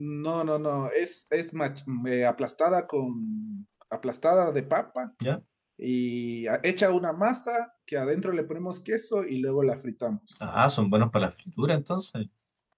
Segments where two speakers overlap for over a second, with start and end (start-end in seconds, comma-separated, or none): none